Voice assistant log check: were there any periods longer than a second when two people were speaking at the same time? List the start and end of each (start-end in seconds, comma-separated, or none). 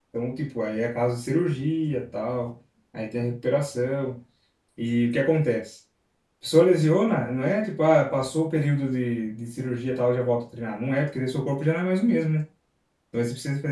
none